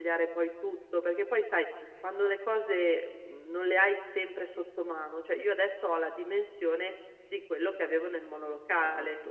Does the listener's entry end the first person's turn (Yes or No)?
No